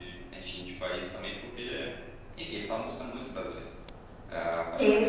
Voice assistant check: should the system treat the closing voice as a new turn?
Yes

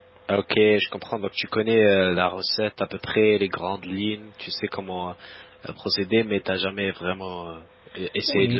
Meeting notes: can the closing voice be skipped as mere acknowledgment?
No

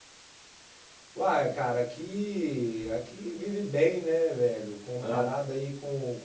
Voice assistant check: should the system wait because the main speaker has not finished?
Yes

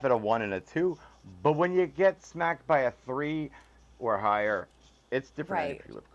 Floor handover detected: Yes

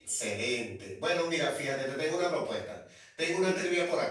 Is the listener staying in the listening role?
Yes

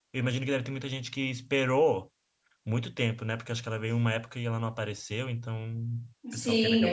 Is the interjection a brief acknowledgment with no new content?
No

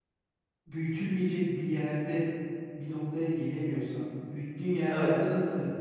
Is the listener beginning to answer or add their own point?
No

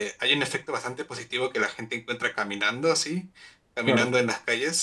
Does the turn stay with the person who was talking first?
Yes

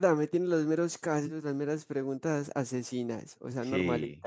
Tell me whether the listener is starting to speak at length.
Yes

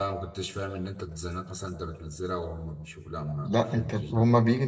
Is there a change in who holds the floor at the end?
Yes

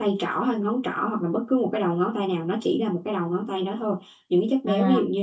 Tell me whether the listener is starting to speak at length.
No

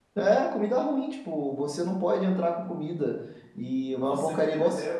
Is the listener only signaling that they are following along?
No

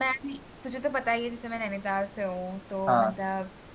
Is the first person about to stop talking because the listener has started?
No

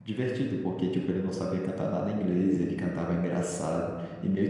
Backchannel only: No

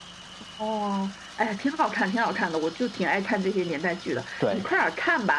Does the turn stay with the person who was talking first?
Yes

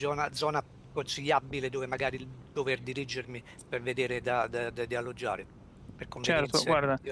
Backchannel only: No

